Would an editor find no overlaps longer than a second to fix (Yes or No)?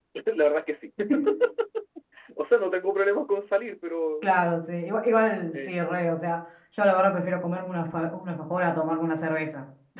Yes